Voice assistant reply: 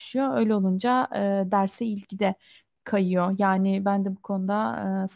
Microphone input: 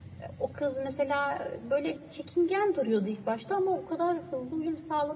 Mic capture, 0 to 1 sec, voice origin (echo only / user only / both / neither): user only